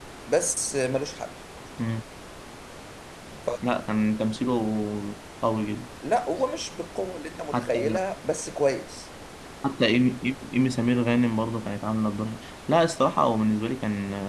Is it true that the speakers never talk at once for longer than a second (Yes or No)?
Yes